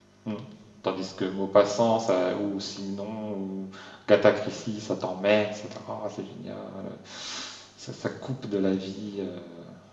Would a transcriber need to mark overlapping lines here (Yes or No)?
No